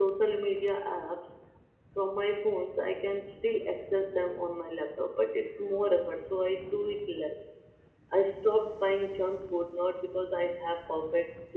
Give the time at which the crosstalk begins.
none

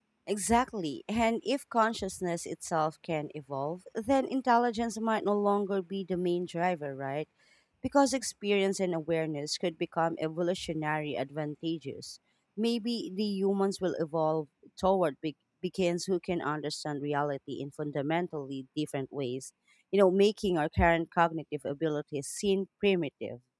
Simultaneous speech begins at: none

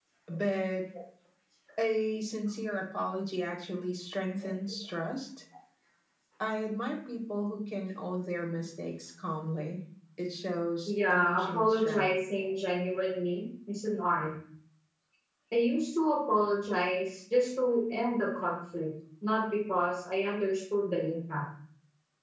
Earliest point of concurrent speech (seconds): 11 s

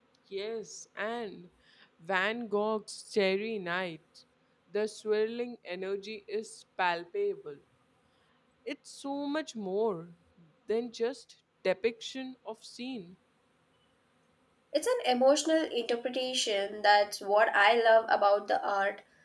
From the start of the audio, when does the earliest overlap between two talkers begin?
none

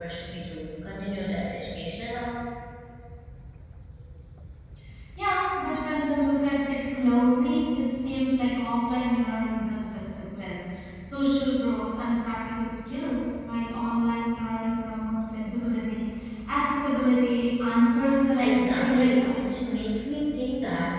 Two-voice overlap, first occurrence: 18 s

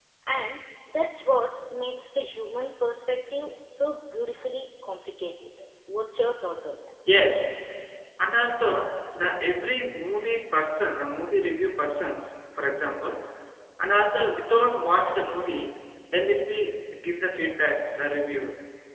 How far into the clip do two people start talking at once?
none

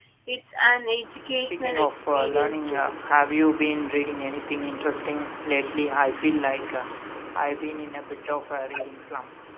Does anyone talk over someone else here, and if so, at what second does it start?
1 s

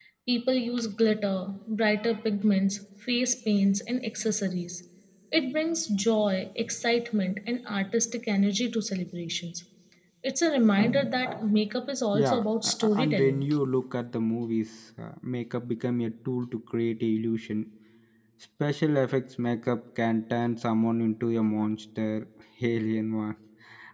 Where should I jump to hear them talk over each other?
12 s

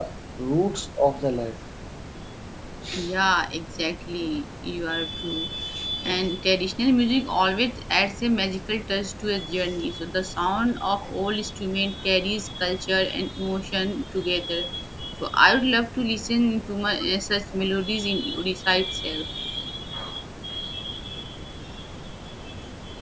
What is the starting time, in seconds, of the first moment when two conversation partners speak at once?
none

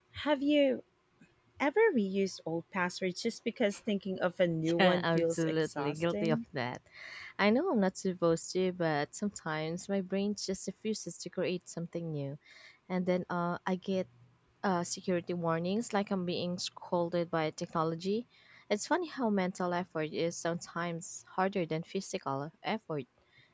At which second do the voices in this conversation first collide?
5 s

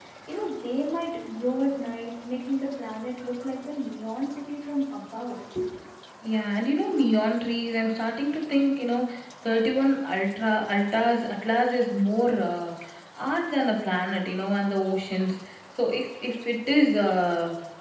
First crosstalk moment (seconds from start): none

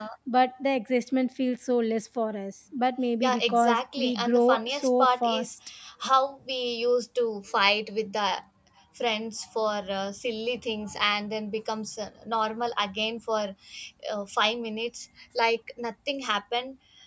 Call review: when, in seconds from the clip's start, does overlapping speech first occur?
3 s

